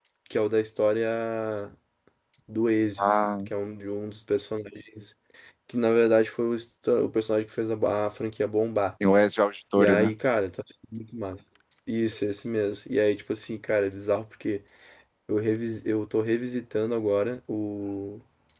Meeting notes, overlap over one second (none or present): none